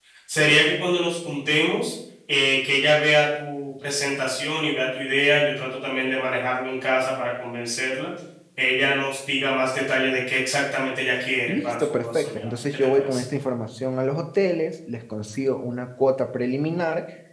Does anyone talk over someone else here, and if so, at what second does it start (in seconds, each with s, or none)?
11.5 s